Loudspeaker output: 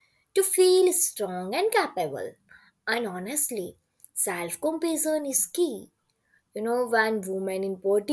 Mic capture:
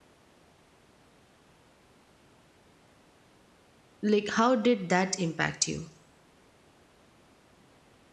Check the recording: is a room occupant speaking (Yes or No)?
Yes